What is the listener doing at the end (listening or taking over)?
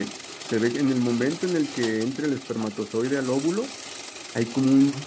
listening